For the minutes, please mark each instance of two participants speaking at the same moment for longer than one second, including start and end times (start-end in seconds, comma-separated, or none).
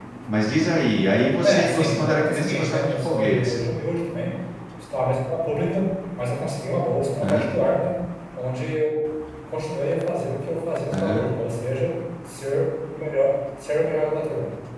1.4-3.5